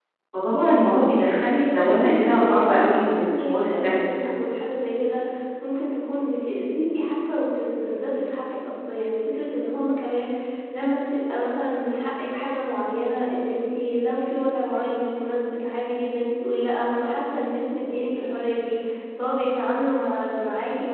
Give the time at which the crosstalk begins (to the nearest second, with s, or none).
2 s